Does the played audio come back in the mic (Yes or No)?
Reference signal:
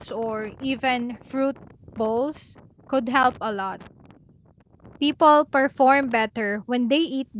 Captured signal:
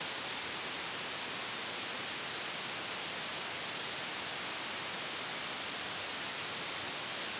No